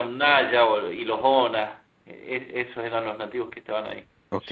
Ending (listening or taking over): taking over